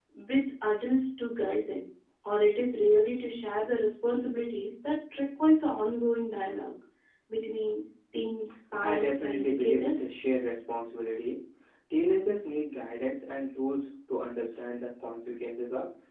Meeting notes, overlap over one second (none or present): present